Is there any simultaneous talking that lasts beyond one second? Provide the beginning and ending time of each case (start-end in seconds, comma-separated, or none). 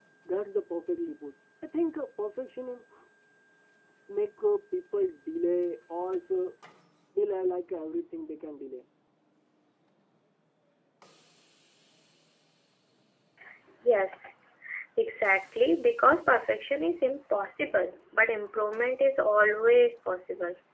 none